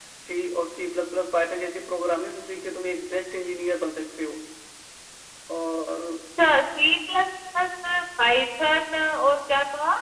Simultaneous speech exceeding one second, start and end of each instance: none

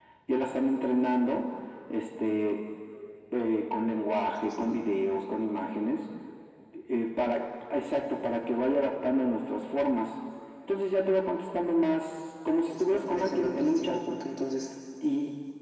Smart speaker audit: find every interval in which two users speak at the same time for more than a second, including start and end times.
12.6-13.9

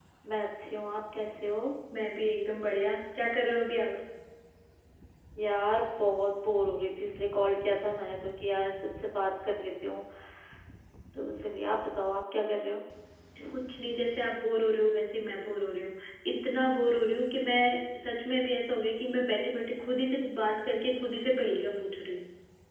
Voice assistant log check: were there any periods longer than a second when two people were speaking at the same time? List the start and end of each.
none

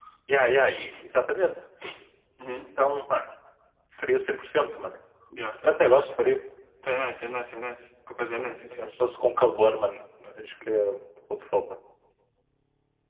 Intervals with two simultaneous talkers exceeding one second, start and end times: none

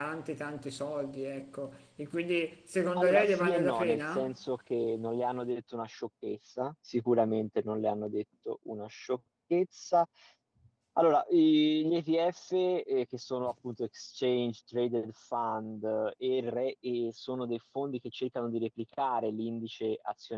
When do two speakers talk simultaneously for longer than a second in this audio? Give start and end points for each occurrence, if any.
3.0-4.3

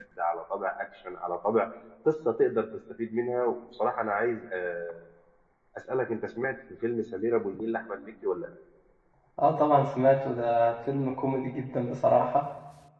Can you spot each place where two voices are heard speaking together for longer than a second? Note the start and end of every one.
none

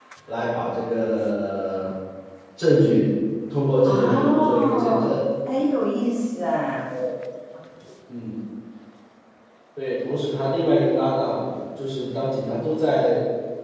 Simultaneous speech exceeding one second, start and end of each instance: 3.8-5.1

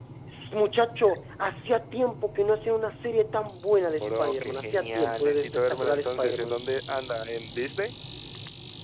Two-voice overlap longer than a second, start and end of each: 3.9-6.6

